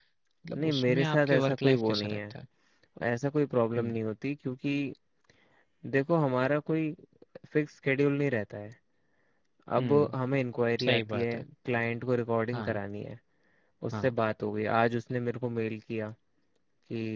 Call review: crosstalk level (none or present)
present